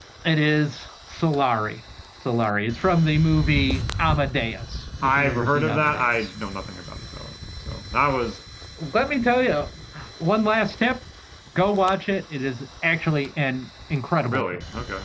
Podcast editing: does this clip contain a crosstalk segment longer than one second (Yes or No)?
Yes